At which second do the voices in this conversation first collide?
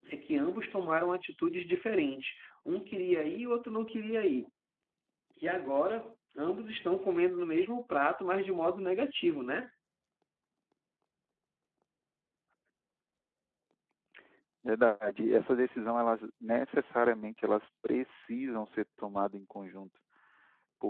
none

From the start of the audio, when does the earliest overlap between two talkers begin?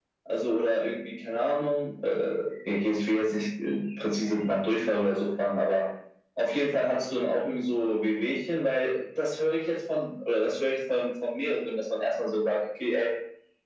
none

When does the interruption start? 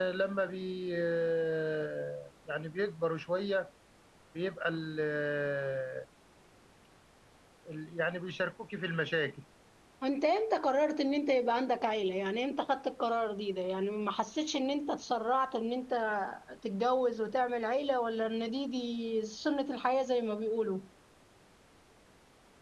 none

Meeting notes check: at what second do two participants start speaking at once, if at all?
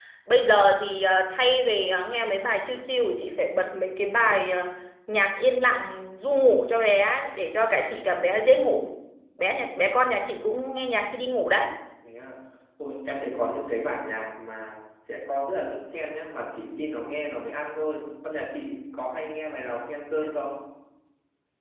none

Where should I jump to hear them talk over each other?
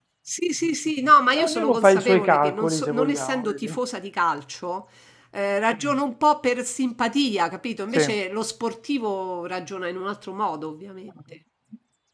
1 s

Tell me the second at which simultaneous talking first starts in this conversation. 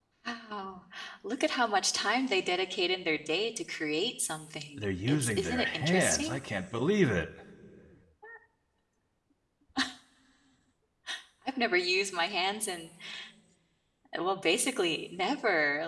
5 s

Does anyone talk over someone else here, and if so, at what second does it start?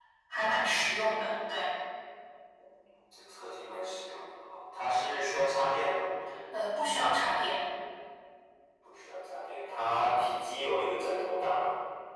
none

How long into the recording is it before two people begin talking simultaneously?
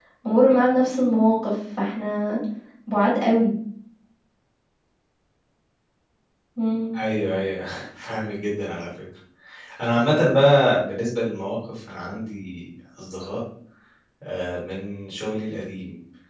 none

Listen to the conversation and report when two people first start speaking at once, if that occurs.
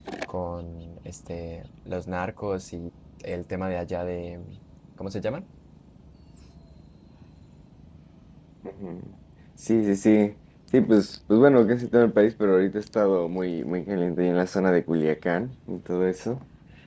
none

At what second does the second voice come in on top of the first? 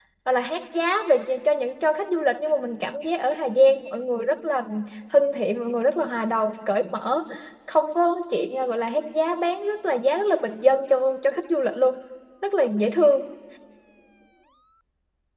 none

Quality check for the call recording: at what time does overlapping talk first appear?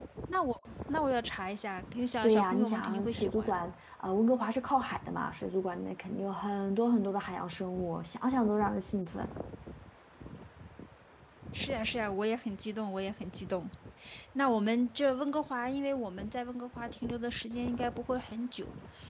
2 s

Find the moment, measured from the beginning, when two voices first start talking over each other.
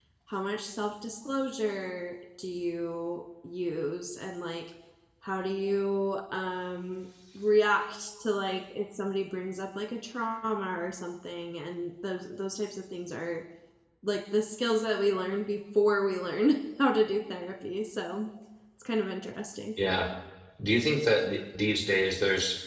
none

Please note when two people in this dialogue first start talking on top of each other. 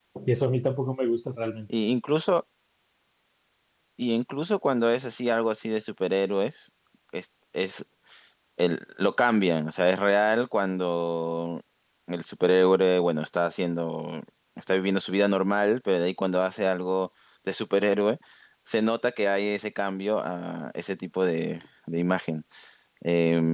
none

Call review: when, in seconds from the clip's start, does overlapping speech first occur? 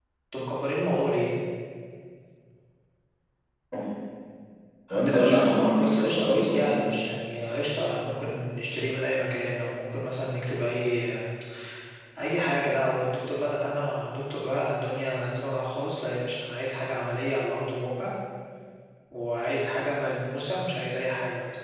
5 s

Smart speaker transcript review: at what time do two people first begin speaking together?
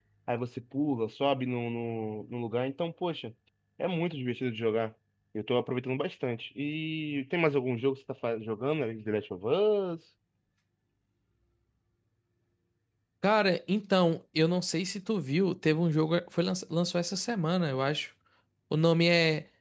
none

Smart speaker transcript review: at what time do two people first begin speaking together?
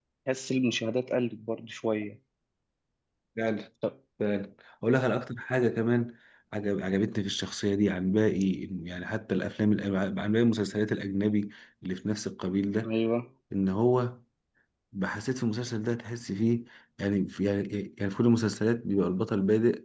none

